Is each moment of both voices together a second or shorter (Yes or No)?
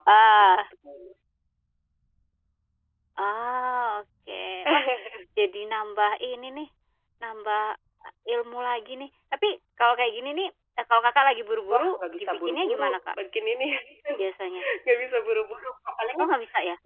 No